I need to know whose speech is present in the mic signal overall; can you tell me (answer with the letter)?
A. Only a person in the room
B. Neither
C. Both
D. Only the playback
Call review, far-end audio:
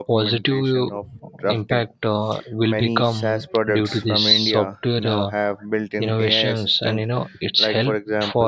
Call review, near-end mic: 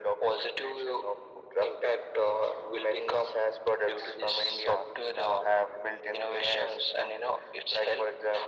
D